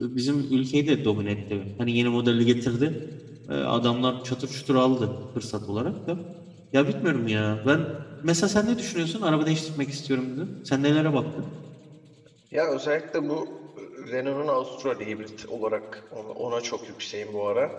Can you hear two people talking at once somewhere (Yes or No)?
No